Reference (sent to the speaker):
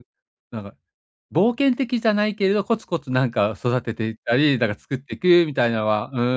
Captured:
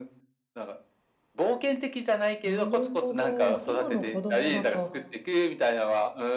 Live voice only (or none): なるほど。今の子供だと、